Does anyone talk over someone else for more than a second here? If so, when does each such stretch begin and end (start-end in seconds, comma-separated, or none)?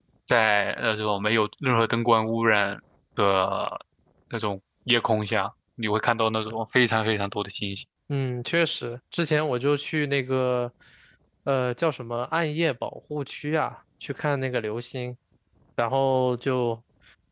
none